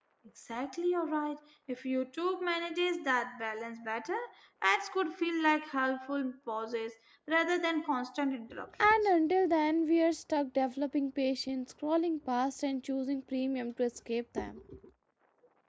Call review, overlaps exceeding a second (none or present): none